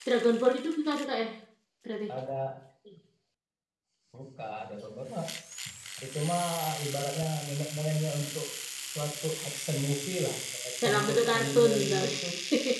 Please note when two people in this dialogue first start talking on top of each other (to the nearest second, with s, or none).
11 s